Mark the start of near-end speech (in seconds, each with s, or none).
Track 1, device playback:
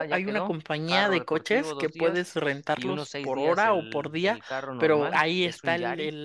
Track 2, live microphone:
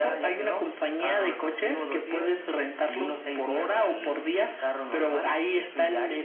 none